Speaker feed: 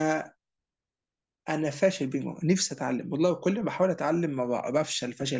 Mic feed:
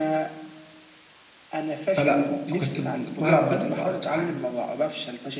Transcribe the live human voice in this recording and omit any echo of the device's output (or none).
فلا فكنت كنت بلعب بادل بقى اكتر حاجه